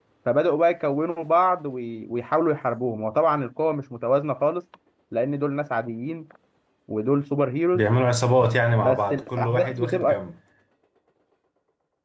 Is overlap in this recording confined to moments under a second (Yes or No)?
No